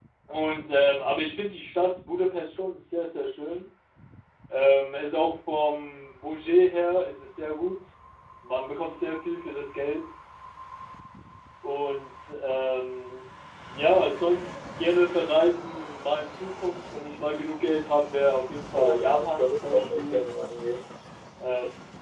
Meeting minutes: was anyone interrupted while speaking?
Yes, from 18.8 s

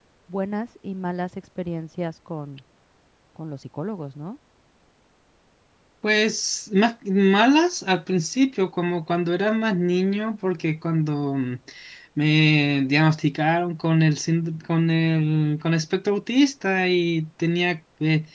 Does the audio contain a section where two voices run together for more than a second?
No

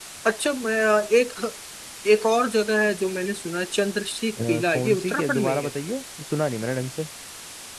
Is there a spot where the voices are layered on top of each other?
Yes, from 4.4 s

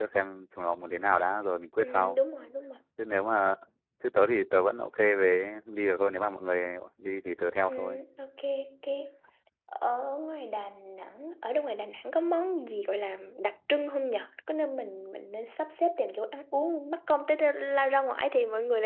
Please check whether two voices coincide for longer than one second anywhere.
No

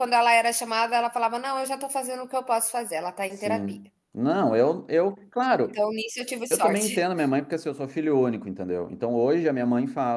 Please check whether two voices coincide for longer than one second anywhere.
No

